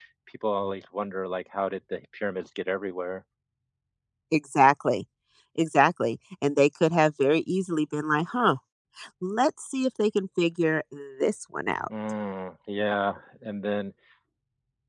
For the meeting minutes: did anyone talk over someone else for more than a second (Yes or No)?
No